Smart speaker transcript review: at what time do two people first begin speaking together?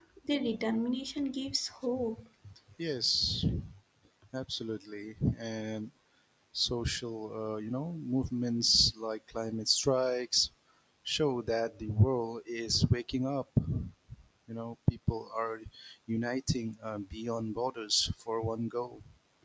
none

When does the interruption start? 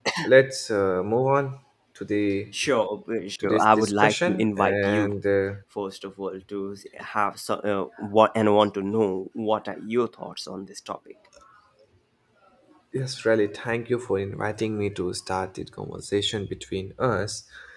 3 s

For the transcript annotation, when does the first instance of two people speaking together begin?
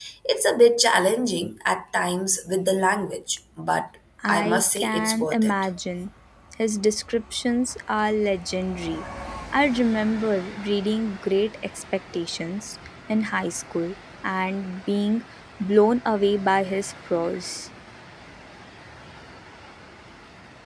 4 s

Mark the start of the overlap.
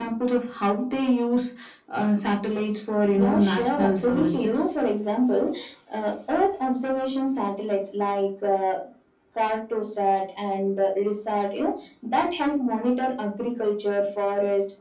3 s

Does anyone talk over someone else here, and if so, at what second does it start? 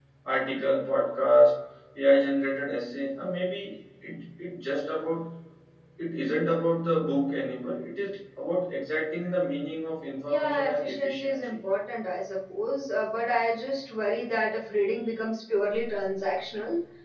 10 s

